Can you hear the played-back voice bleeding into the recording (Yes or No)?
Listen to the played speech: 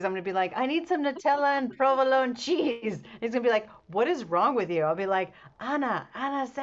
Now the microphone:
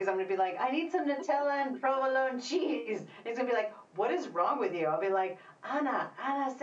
Yes